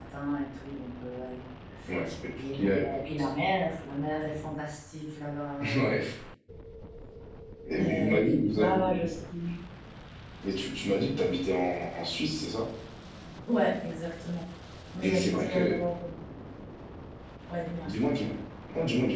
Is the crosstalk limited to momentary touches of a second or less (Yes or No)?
No